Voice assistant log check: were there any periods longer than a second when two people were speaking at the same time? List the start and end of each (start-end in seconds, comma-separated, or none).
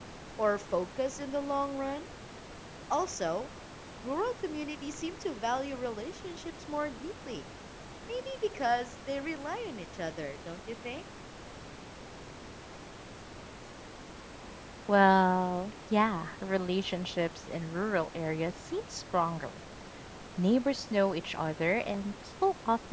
none